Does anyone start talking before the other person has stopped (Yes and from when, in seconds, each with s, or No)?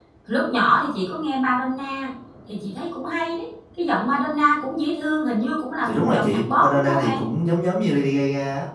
Yes, from 5.8 s